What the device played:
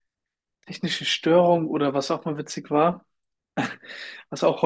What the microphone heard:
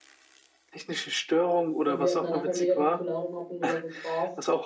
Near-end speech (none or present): present